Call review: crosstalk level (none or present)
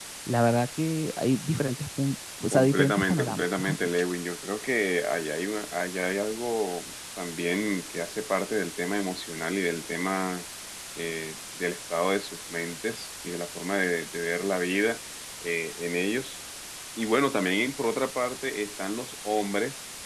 present